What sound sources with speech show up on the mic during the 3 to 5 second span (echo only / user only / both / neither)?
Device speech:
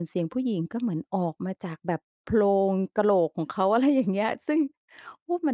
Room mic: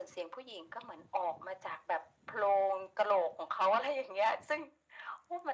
echo only